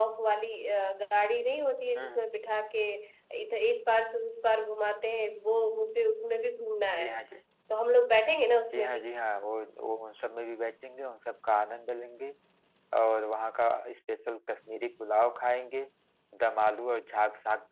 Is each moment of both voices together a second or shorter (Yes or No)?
Yes